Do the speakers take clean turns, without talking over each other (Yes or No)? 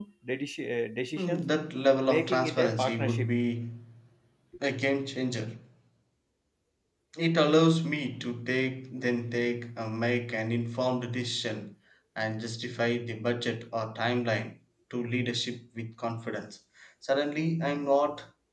No